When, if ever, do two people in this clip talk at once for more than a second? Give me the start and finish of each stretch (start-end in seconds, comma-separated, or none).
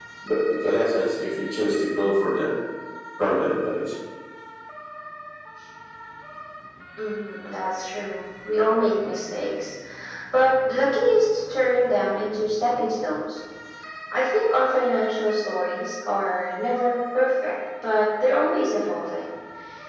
none